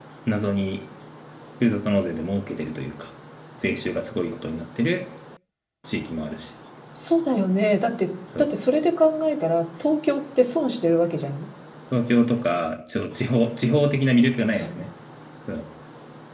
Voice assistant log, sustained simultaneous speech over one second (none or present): none